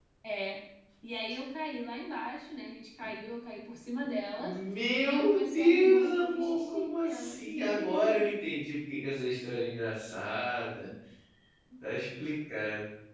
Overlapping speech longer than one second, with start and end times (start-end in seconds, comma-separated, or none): 5.0-8.3